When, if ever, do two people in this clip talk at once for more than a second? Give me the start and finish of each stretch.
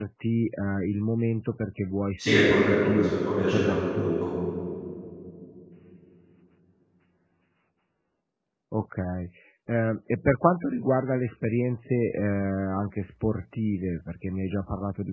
2.2-4.1

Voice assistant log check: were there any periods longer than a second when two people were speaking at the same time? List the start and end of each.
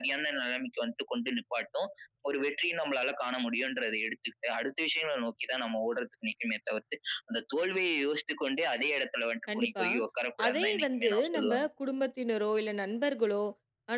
10.5-11.7

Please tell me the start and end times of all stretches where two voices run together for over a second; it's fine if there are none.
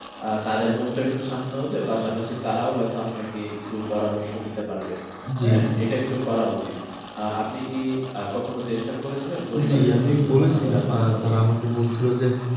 9.7-11.1

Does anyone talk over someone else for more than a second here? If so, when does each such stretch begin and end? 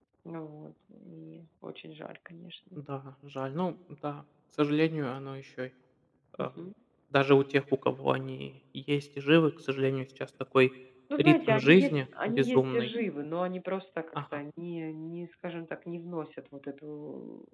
11.2-12.9

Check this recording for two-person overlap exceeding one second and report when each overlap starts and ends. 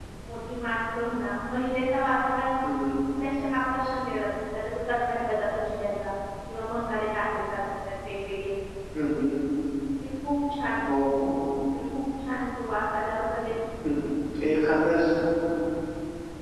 none

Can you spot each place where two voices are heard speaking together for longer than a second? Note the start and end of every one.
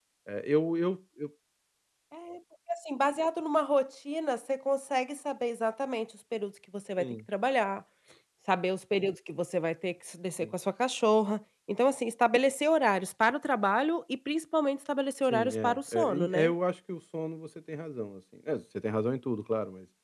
15.2-16.5

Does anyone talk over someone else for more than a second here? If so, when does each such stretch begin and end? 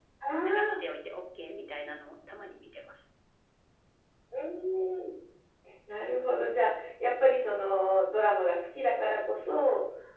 none

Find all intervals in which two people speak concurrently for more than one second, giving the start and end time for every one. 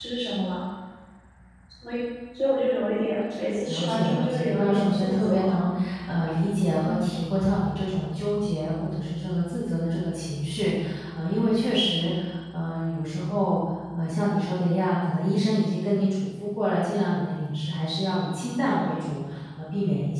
3.6-5.6

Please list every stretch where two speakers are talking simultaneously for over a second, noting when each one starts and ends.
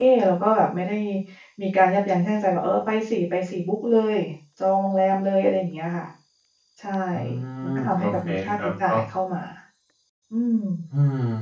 7.6-8.9

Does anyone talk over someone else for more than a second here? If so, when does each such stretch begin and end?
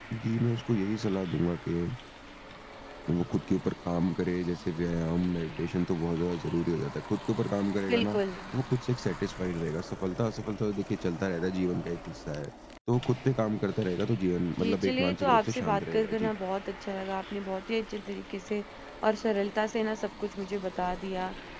14.6-16.3

